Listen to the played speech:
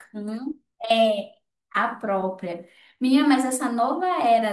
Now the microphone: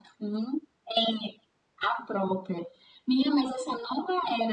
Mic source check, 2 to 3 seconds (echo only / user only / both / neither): echo only